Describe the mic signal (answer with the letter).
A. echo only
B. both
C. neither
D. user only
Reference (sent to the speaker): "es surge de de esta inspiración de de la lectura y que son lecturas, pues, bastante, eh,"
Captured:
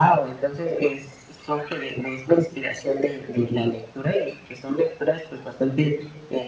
A